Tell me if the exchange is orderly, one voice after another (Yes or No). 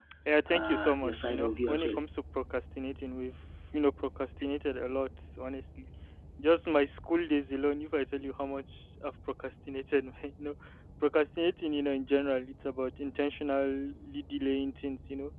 No